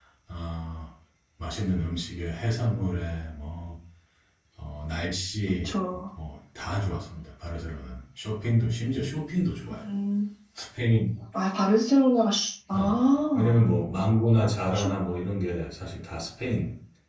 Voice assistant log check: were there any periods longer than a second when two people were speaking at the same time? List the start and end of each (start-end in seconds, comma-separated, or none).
none